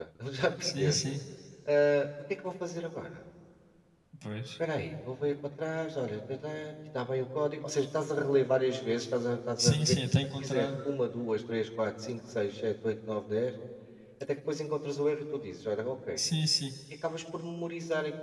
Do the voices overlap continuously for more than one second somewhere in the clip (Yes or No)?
No